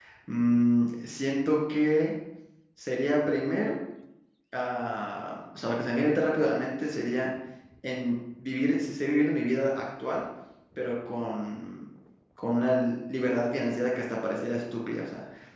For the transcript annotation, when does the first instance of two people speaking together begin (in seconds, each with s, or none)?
none